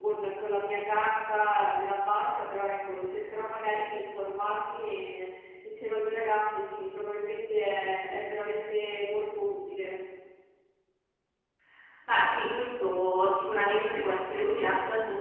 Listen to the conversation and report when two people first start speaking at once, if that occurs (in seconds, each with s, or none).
none